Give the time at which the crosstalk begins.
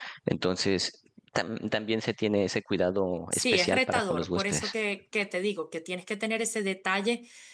3 s

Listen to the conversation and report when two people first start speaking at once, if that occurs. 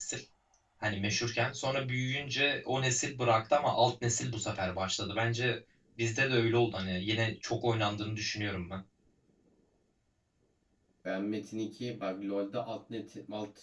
none

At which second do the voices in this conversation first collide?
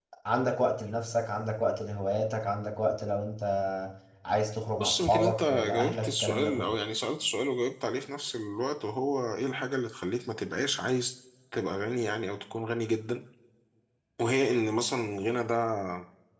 5 s

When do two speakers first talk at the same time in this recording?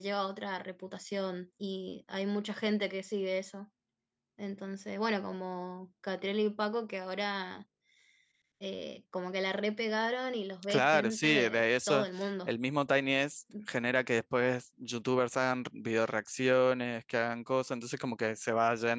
11 s

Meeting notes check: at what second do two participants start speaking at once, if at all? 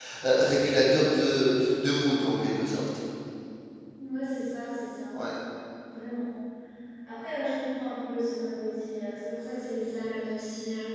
none

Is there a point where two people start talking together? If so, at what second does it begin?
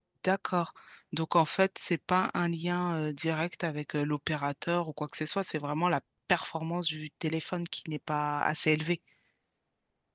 none

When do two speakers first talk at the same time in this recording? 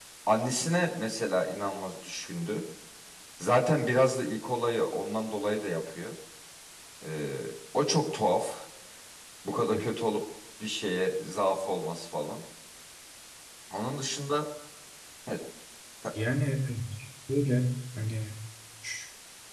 none

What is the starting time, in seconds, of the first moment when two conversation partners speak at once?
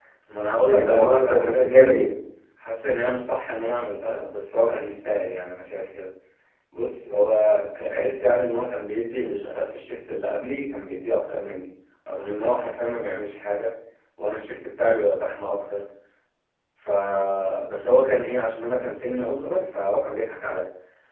1 s

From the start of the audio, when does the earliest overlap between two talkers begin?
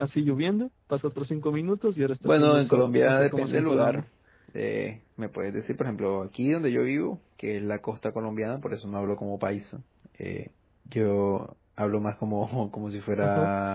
2 s

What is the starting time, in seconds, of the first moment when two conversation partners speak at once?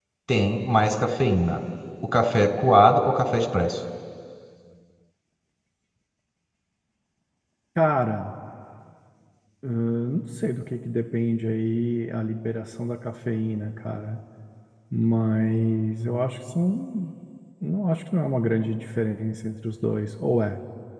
none

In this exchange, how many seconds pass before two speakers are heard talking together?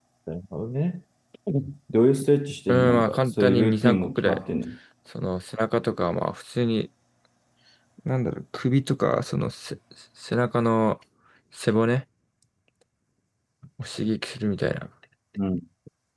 3 s

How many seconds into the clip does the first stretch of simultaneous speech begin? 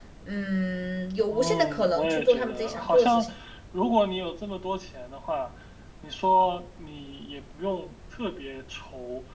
1 s

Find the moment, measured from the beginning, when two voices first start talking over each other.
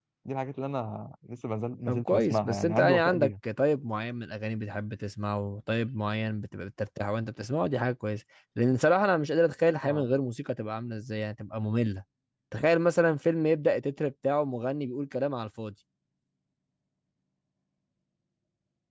2 s

